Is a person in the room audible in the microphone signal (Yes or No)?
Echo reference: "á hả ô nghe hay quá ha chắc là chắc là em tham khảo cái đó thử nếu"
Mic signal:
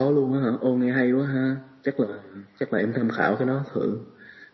No